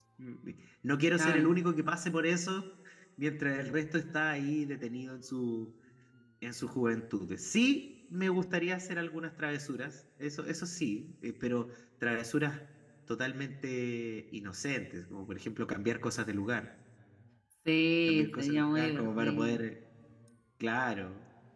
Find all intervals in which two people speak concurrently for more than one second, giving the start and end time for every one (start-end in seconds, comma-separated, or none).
18.1-19.6